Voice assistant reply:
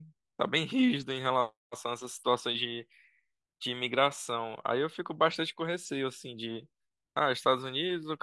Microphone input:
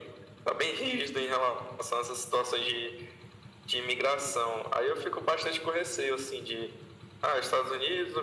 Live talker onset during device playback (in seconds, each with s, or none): none